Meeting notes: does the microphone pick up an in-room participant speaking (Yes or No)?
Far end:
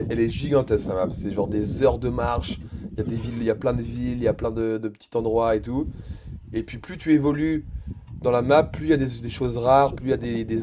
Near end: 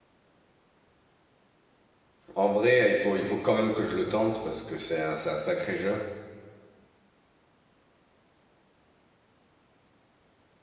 Yes